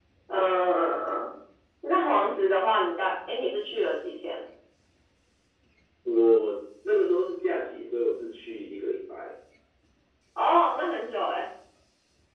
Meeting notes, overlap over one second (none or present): none